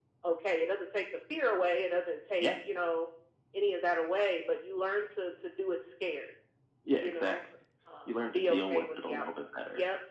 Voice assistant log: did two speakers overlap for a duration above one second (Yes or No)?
Yes